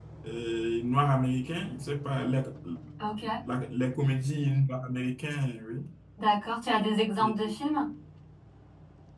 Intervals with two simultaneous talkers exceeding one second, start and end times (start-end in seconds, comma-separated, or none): none